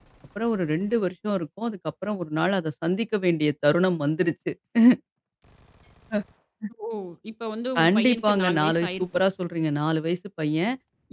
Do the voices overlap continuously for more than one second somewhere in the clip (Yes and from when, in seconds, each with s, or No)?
Yes, from 7.8 s